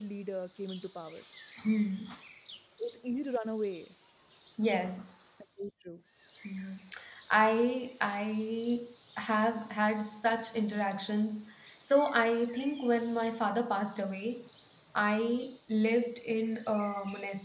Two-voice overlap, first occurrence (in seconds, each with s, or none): none